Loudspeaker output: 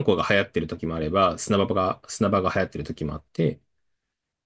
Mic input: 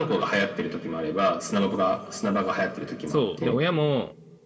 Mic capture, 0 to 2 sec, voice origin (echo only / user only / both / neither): echo only